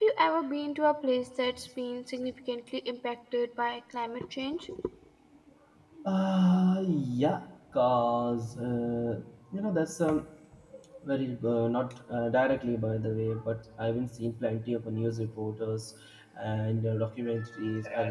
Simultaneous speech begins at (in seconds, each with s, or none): none